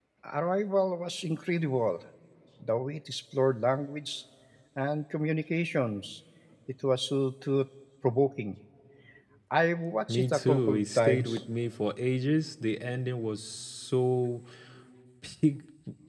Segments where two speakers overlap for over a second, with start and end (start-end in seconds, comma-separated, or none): 10.1-11.4